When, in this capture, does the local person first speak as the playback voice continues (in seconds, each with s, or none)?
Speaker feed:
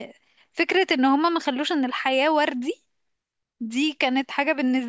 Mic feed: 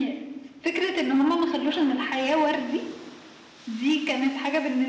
none